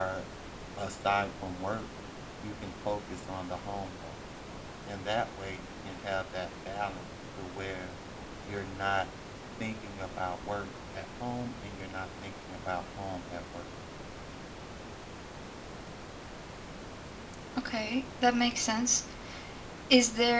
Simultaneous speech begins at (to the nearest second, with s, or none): none